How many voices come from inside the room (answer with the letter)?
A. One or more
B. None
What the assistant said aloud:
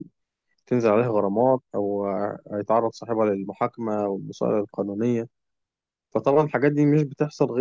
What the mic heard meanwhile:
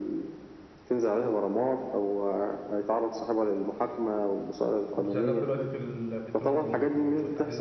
A